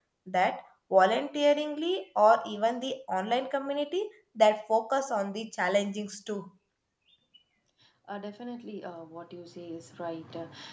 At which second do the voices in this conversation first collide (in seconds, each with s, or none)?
none